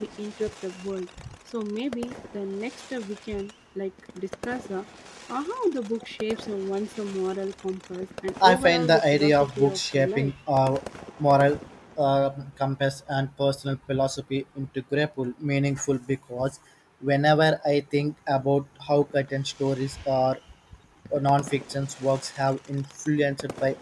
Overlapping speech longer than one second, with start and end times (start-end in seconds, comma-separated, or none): 8.4-10.3